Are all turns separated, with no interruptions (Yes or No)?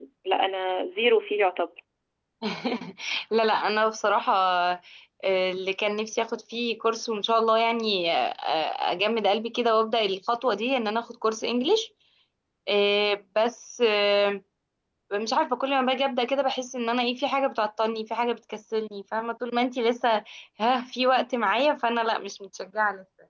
Yes